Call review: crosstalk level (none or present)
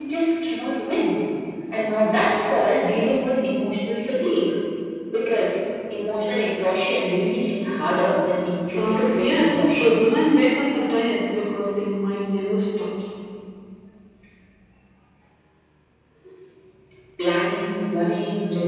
present